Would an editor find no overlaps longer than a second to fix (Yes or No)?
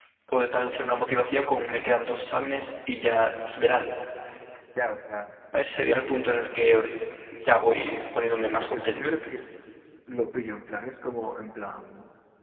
Yes